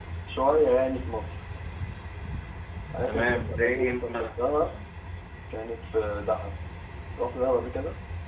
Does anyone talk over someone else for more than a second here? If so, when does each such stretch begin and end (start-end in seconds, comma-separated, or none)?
3.1-4.8